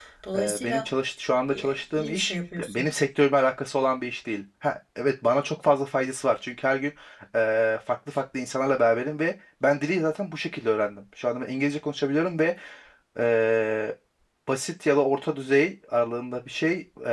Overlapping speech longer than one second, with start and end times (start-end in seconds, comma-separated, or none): 1.5-2.8